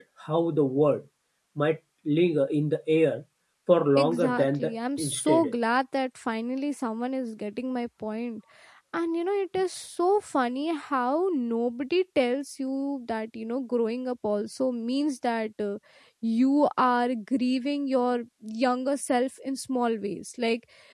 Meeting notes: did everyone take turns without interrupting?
No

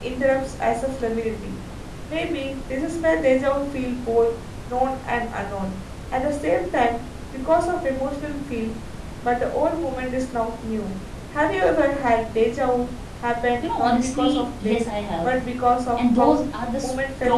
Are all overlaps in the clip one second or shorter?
No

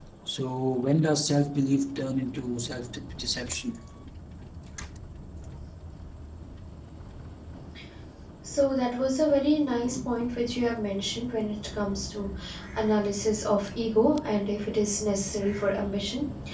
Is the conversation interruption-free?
Yes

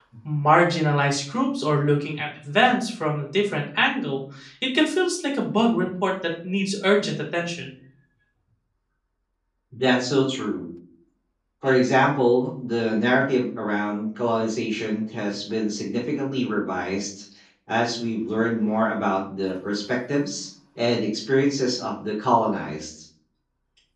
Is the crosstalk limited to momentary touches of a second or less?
Yes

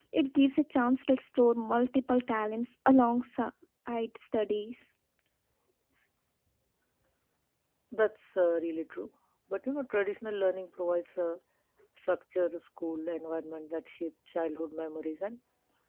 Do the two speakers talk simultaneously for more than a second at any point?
No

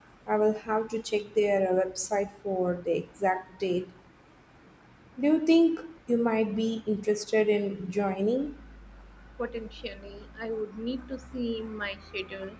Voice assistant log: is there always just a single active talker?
Yes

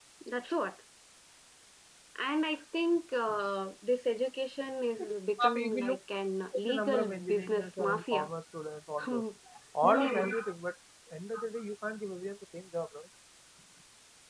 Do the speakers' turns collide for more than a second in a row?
Yes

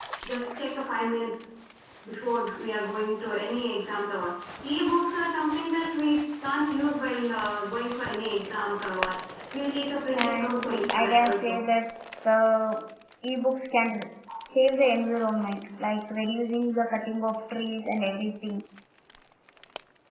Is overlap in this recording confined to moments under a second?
No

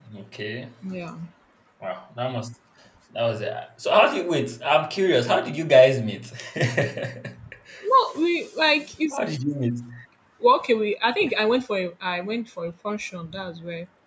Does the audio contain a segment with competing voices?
No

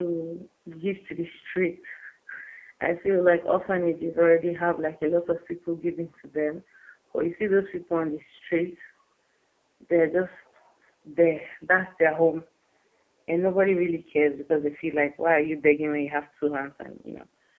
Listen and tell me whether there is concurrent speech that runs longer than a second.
No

